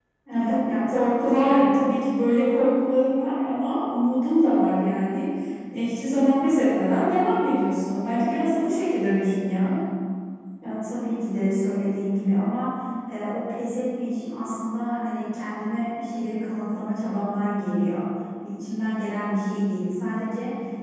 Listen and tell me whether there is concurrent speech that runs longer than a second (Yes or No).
Yes